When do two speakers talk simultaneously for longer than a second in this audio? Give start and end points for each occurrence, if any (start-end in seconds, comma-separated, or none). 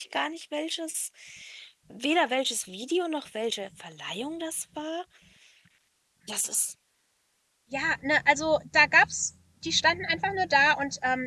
none